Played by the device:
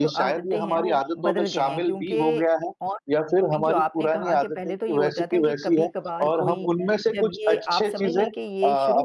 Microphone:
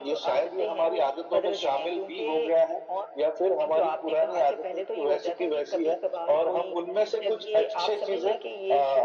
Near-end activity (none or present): none